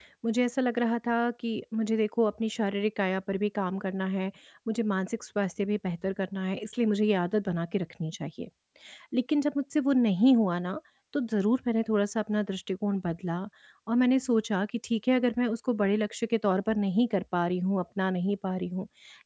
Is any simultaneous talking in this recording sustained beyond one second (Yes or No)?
No